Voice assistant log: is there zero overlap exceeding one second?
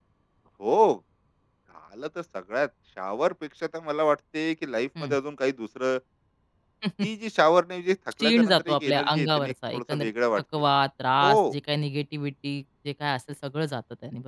No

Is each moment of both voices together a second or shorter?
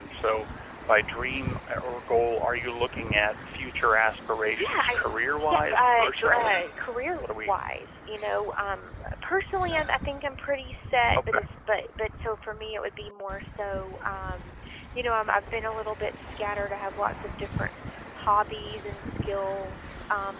No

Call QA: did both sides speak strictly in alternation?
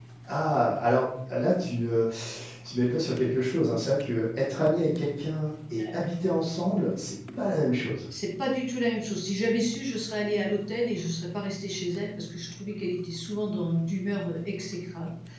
Yes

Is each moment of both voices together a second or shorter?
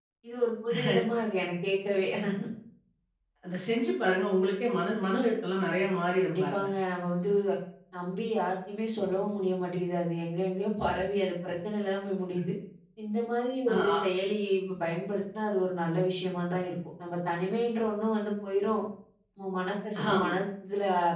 Yes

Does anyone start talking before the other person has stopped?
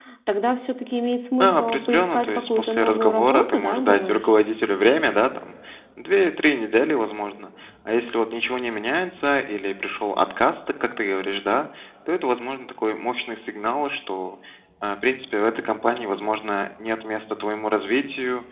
Yes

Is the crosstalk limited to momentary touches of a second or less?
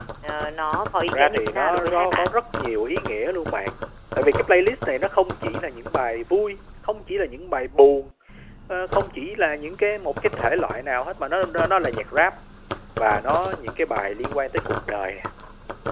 No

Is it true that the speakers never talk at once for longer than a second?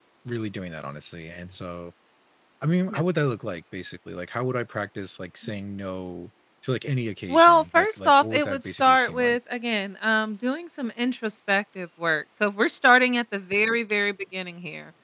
No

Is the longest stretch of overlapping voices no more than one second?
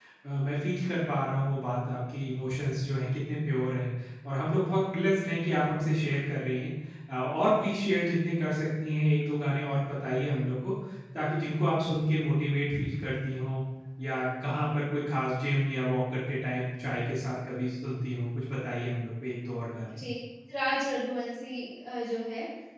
Yes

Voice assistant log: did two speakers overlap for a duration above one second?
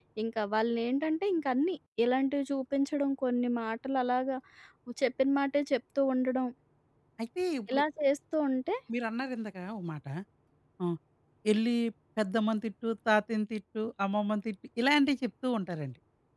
No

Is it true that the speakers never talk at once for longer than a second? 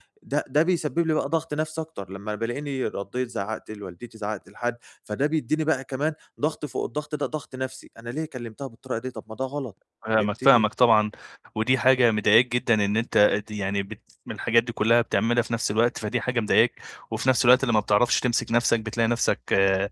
Yes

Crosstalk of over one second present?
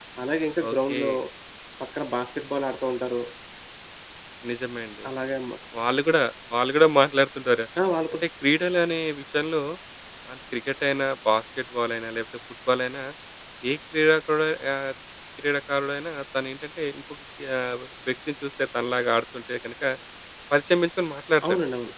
No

